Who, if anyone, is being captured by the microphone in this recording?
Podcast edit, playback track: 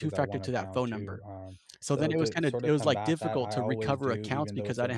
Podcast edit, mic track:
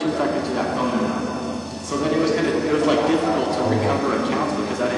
both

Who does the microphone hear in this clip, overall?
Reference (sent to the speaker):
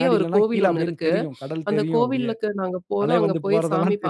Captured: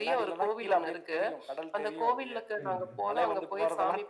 both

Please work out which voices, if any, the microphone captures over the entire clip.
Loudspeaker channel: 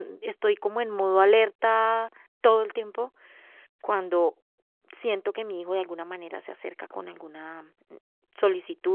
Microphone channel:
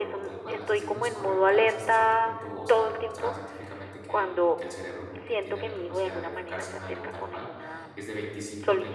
both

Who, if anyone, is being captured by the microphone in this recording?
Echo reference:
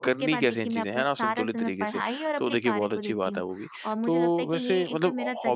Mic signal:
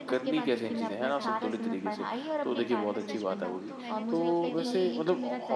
both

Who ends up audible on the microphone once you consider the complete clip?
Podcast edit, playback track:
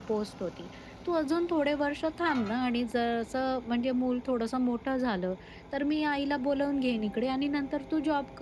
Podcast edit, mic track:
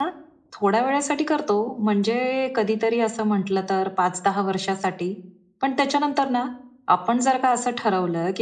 user only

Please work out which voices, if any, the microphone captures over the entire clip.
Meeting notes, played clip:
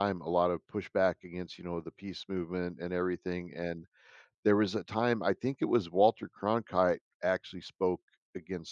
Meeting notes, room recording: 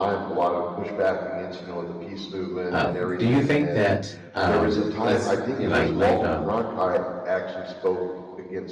both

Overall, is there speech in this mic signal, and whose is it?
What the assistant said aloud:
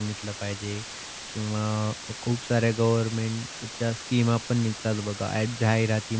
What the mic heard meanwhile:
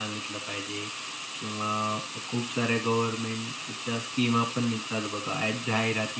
echo only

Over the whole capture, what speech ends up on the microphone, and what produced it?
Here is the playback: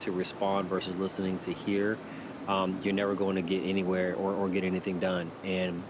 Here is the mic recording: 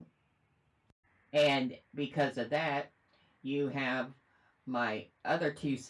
user only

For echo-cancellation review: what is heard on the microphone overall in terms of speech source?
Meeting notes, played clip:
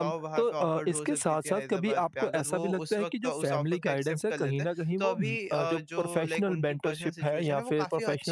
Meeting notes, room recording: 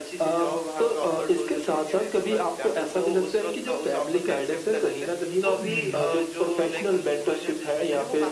both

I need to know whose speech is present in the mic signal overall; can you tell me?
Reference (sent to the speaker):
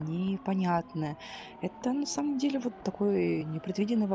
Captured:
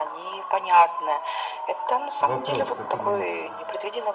both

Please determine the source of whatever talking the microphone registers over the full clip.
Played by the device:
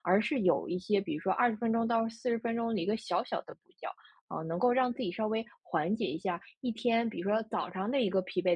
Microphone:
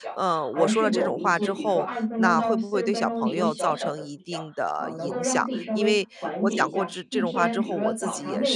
both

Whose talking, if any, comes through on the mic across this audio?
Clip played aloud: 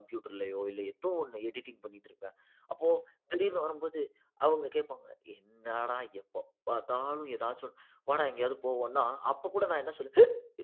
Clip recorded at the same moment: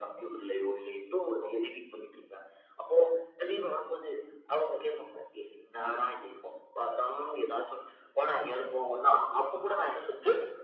echo only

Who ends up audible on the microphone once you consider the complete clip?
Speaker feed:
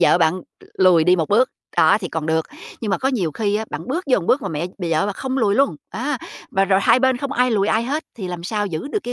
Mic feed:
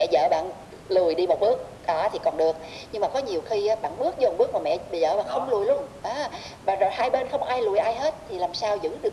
both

